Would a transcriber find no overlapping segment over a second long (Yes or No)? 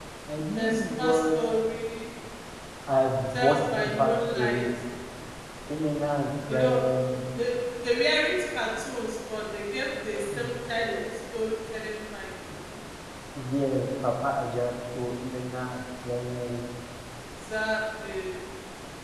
No